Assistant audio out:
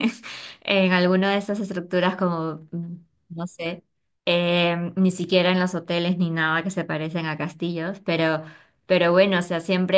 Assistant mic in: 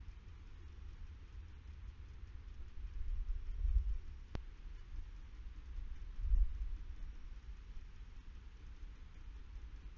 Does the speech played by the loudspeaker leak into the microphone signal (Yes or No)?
No